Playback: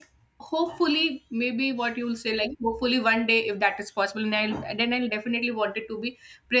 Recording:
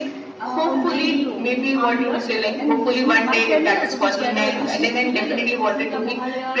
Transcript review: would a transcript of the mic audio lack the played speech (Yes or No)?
No